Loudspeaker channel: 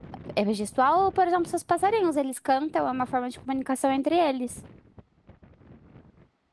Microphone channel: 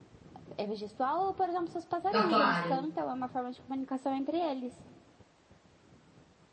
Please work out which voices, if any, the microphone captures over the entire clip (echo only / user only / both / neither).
both